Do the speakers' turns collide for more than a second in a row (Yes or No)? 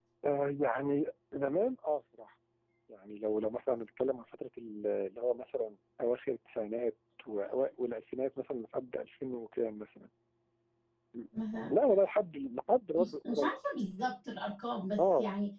No